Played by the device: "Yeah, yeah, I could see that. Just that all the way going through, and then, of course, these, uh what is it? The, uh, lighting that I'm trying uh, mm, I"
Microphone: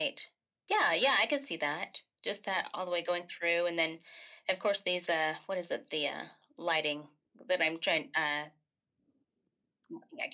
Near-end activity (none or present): none